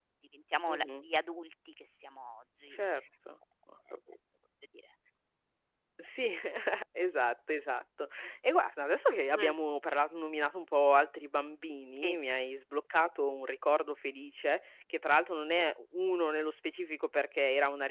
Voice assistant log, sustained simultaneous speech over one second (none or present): none